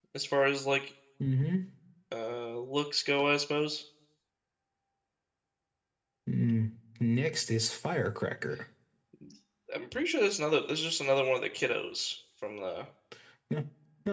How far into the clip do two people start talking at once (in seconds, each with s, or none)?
none